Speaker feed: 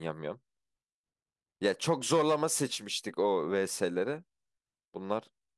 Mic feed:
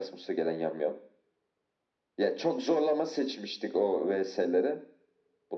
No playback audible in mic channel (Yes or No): No